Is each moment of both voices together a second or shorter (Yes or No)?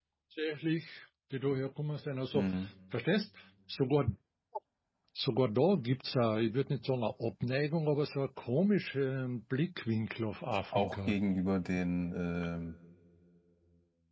Yes